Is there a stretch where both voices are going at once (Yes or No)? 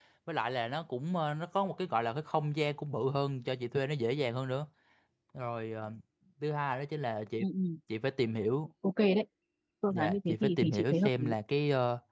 Yes